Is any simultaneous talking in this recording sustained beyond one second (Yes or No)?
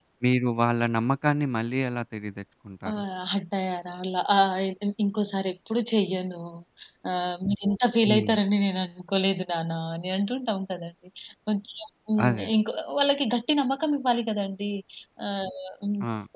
No